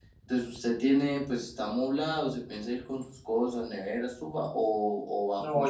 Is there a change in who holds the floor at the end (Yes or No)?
Yes